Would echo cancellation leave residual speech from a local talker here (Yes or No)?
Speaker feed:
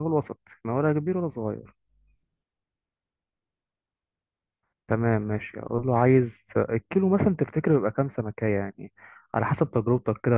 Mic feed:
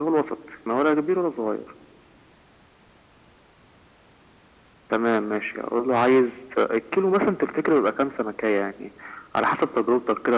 No